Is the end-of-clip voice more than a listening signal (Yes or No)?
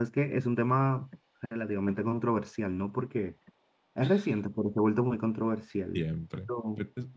Yes